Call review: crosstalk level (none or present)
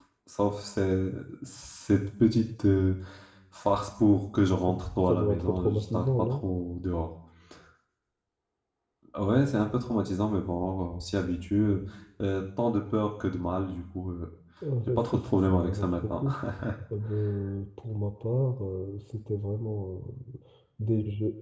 present